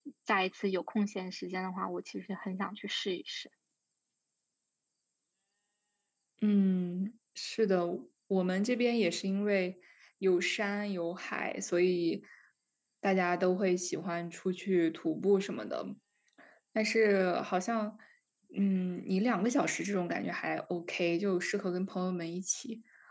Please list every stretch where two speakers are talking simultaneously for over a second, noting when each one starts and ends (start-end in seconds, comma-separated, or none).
none